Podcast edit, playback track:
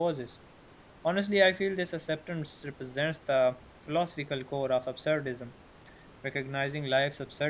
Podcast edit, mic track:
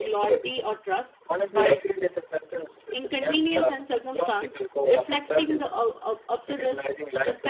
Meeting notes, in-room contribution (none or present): present